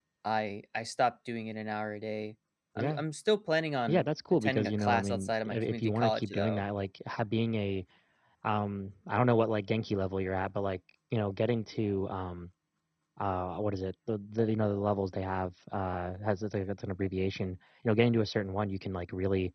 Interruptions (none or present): present